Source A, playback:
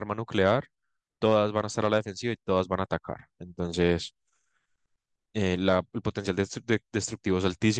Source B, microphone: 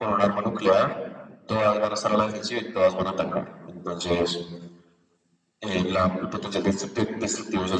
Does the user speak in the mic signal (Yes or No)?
No